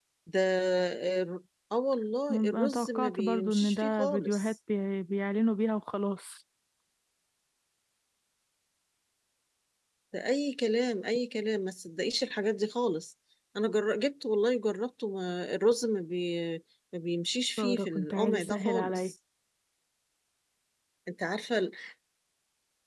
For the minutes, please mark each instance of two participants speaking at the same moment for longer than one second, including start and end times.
2.3-4.5, 17.6-19.1

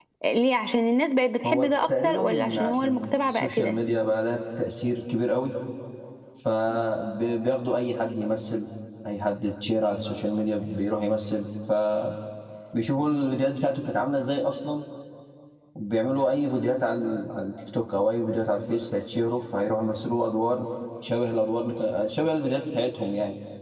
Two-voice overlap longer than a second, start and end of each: 1.4-3.8

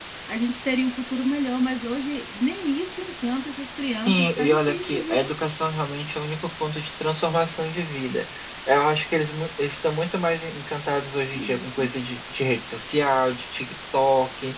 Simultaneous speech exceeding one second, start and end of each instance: 4.1-5.3

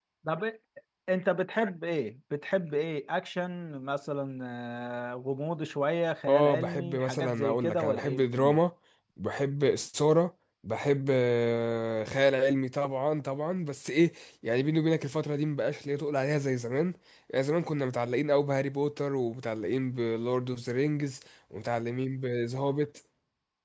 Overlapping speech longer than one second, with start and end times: 6.3-8.6

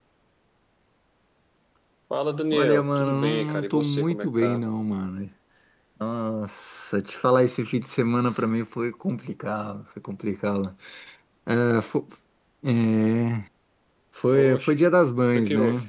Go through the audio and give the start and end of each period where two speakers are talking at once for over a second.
2.5-4.6

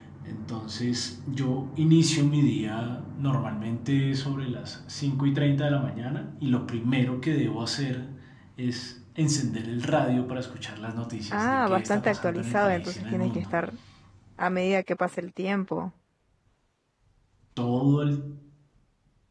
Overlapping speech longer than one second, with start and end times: 11.3-13.4

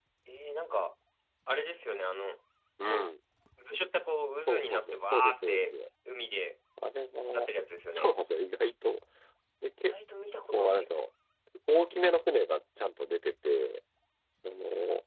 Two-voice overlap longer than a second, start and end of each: 4.3-5.7

